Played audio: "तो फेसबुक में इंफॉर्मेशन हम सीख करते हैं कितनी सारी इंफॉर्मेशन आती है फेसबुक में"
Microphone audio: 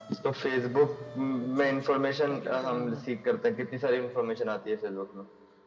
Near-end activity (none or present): present